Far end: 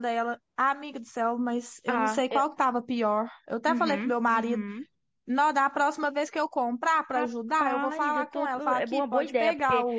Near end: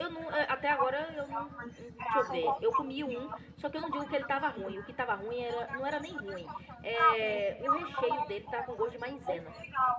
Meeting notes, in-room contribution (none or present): present